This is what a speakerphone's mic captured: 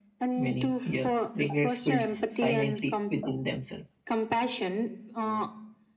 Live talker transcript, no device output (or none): many years regrets builds silently within themselves